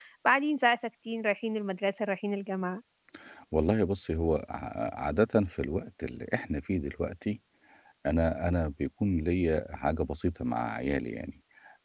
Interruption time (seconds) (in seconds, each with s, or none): none